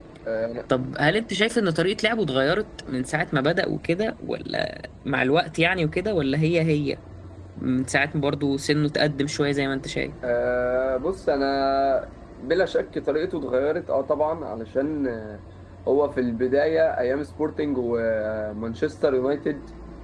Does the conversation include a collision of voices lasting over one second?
No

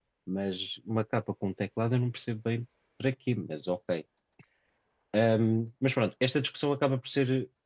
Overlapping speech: No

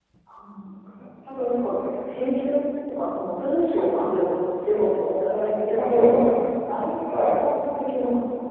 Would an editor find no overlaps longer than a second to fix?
No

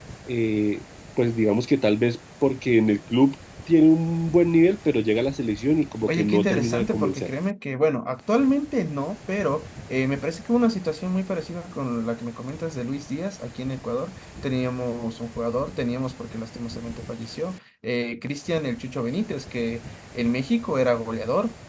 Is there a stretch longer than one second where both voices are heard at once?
Yes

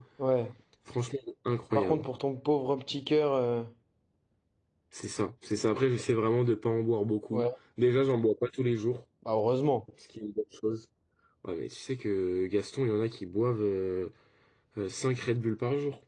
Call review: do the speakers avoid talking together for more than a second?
Yes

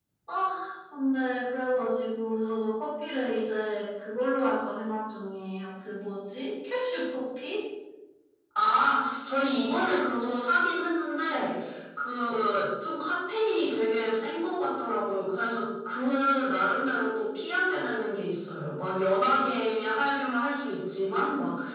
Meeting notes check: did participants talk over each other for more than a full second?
No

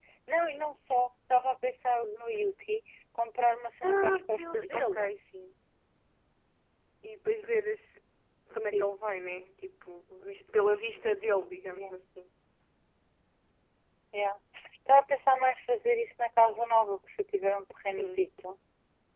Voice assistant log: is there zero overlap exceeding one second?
No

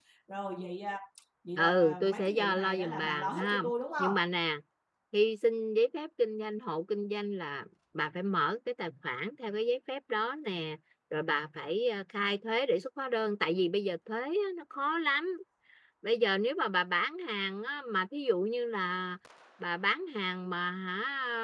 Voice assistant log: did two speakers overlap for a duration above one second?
Yes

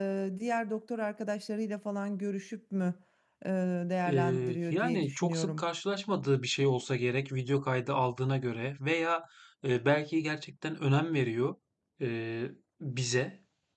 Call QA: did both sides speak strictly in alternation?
No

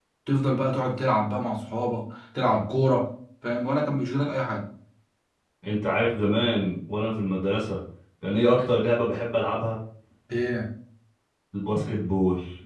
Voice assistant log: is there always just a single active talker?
Yes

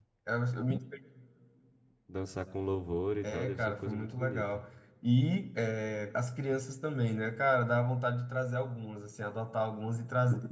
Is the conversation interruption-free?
No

